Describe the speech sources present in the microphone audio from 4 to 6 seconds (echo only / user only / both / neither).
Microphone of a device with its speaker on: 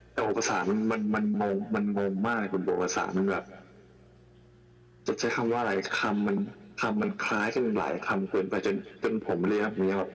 echo only